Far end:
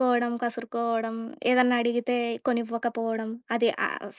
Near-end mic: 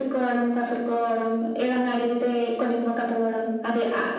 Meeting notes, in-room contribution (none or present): none